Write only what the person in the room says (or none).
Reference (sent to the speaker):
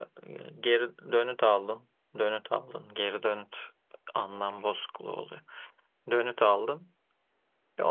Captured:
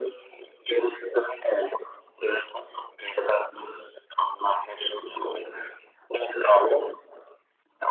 none